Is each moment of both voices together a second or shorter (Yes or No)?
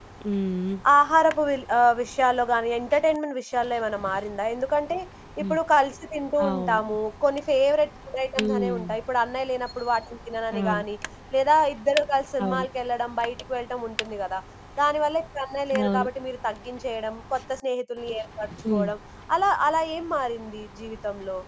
Yes